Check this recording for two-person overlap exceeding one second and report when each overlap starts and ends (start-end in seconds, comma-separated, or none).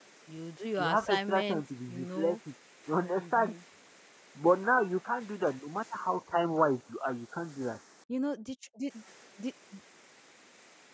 0.8-2.4